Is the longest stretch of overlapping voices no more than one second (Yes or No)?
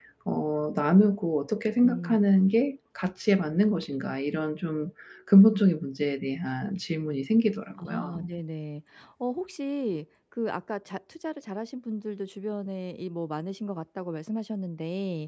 Yes